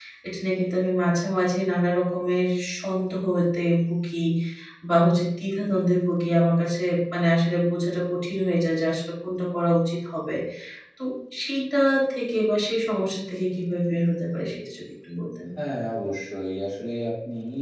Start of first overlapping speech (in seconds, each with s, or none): none